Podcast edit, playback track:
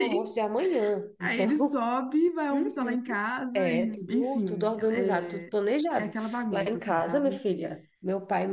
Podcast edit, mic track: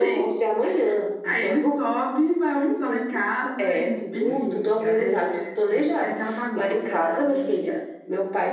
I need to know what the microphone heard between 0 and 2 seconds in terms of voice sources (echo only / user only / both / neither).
echo only